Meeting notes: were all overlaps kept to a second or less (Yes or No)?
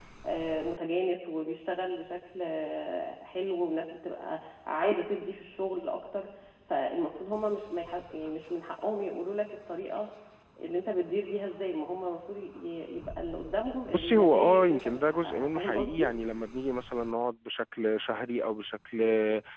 No